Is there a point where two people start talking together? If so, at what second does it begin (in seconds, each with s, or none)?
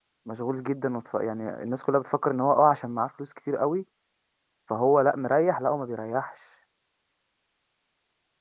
none